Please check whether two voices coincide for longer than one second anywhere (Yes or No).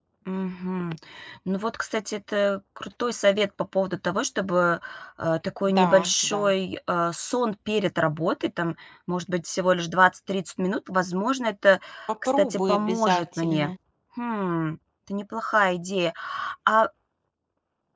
Yes